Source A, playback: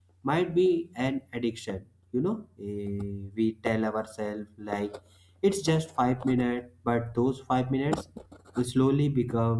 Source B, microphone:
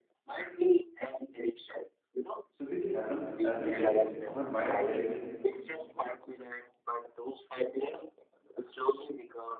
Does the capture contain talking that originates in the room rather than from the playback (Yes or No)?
Yes